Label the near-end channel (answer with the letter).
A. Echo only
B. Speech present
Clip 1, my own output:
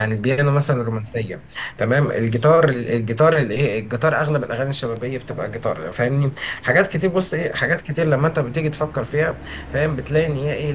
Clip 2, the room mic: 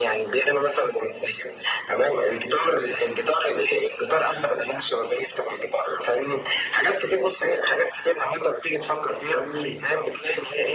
B